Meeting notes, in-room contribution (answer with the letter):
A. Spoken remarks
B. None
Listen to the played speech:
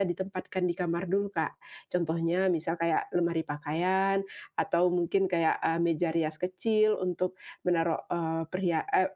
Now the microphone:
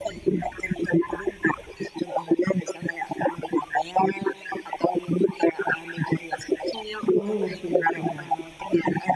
A